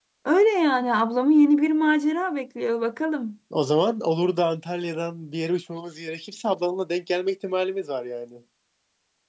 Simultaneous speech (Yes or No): No